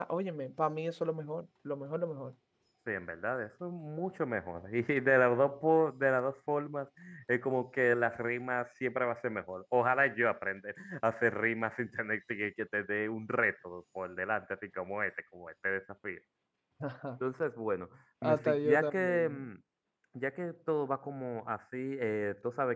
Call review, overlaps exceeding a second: present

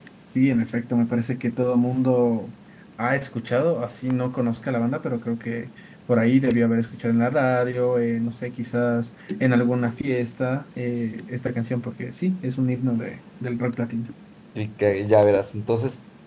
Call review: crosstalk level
none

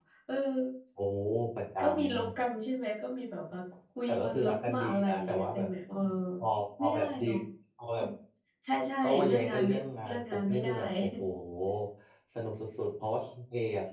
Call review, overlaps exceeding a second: present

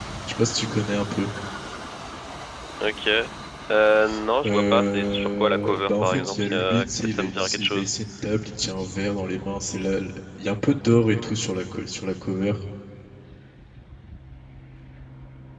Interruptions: present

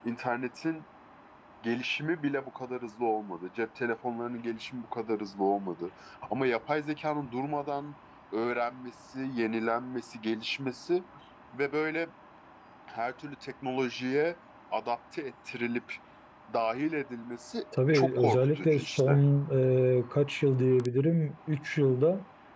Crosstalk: present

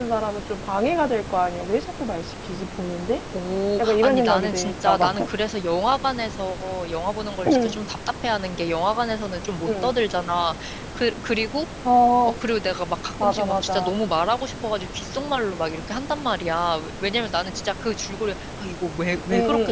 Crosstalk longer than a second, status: present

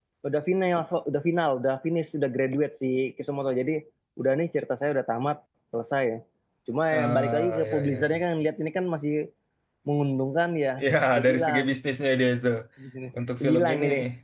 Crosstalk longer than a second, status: present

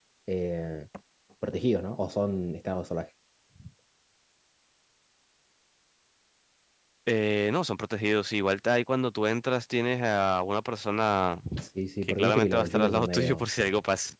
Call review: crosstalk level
present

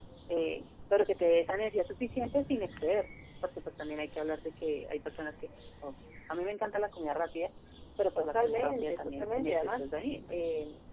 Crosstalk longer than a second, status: present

